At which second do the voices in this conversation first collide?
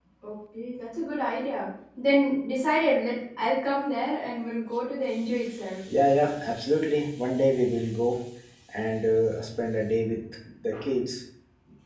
none

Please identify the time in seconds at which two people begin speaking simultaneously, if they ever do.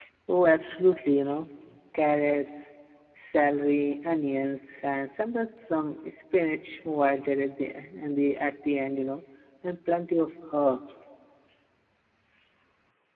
none

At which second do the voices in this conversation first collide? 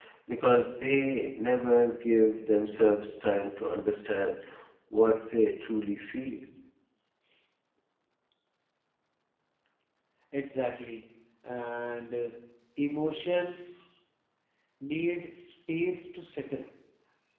none

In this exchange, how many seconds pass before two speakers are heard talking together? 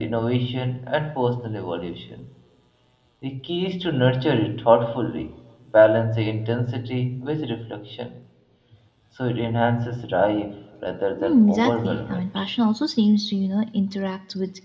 11 s

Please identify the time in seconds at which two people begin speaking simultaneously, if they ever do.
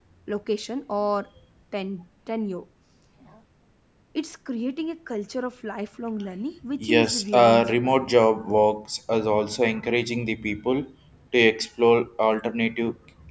7 s

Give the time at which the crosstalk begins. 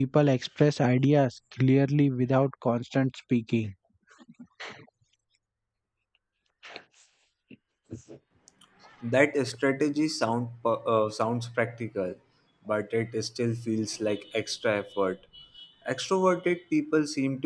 none

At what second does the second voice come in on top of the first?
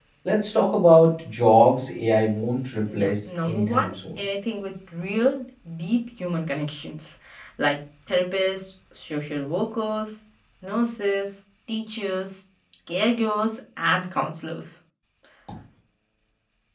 3 s

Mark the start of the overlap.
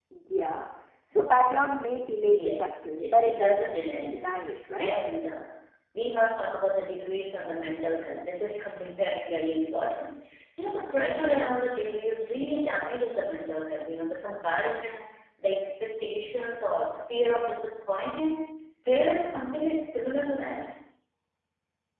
2 s

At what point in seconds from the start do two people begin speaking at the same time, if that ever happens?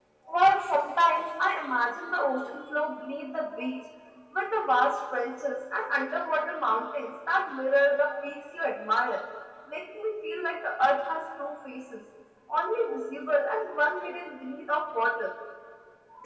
none

